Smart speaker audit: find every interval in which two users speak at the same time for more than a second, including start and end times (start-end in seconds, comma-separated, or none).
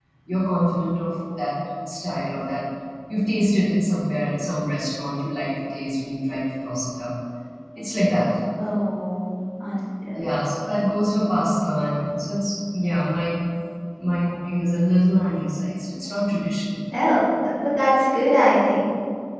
none